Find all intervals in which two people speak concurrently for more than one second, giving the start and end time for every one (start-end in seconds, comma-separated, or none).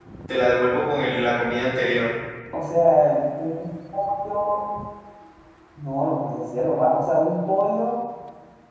none